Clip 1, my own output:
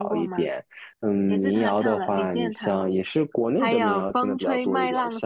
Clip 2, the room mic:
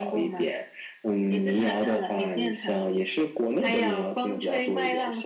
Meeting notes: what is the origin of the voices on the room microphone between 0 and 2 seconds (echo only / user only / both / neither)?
echo only